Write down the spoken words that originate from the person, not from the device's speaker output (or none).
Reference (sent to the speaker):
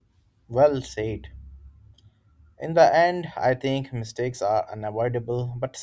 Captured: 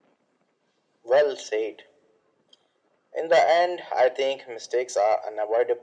none